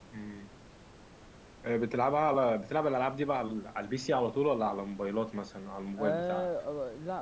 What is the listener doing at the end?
taking over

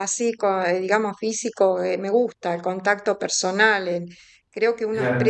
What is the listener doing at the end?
listening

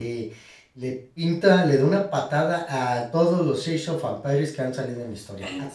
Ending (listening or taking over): listening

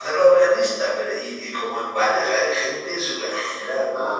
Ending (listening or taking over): taking over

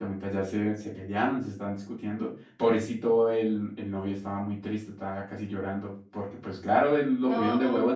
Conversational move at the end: listening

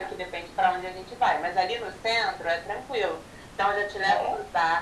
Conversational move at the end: listening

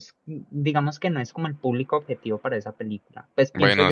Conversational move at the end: taking over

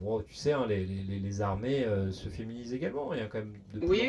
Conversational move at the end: taking over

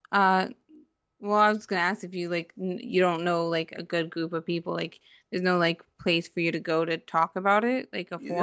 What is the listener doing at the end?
taking over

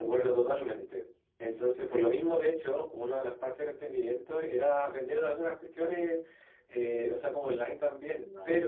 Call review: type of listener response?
listening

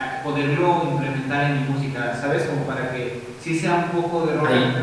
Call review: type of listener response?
listening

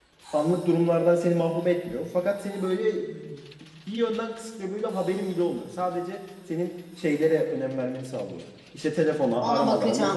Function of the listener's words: listening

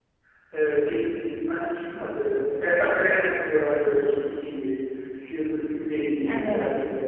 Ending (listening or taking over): listening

